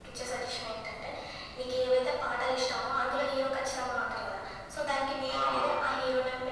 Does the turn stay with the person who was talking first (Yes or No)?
Yes